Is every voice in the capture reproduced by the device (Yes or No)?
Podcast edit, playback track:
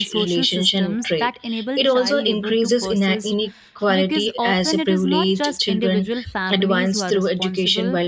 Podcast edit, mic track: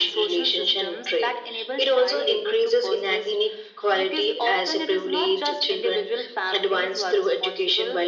Yes